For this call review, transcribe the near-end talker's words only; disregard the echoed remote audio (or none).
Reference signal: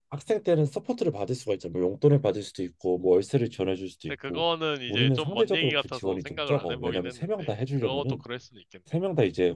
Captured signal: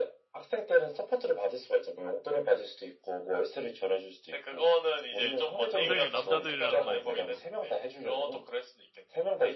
평생을 남자들이랑만 있어서 그렇구나.